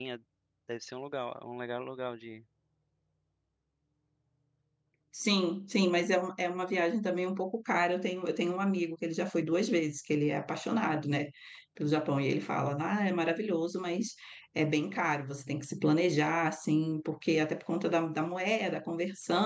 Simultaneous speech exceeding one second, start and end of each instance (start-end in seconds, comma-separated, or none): none